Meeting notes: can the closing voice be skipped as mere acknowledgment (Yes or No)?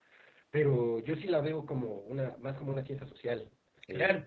No